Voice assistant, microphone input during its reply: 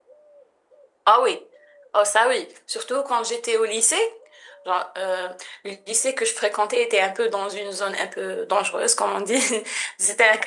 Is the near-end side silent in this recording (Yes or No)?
Yes